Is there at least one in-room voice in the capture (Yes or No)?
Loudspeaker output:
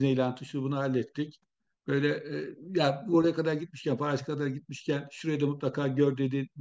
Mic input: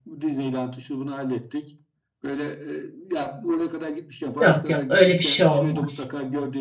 Yes